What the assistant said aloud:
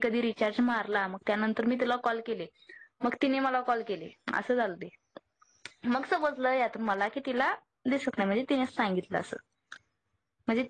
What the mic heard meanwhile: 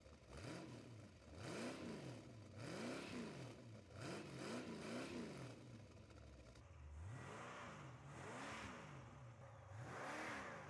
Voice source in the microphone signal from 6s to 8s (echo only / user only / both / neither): neither